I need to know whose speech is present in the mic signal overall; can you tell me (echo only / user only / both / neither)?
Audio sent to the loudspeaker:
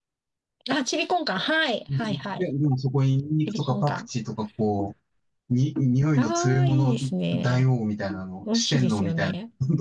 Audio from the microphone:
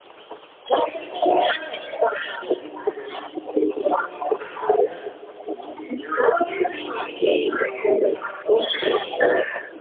both